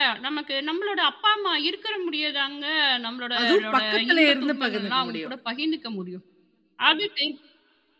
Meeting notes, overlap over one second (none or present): present